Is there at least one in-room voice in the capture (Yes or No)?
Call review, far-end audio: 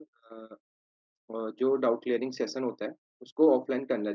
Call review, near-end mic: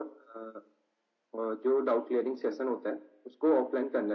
No